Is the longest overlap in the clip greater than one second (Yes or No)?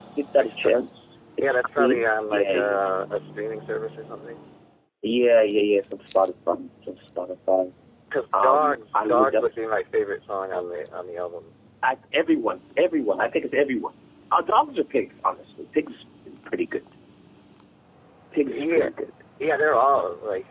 Yes